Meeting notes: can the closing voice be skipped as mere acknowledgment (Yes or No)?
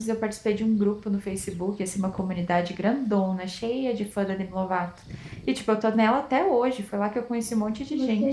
No